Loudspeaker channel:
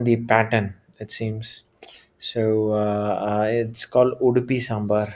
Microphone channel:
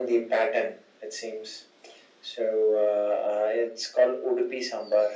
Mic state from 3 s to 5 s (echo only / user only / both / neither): echo only